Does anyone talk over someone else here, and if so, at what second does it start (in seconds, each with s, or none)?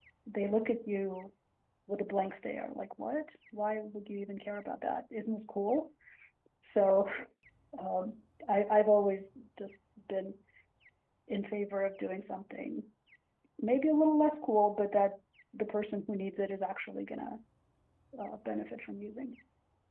none